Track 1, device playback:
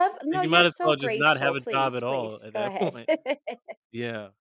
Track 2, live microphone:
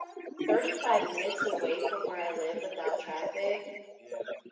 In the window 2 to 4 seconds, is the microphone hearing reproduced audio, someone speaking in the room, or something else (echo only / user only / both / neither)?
both